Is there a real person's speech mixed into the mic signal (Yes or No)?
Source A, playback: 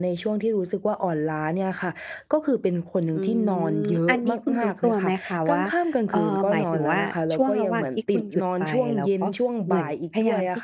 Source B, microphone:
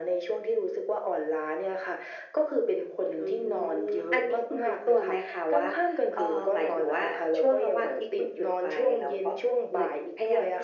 No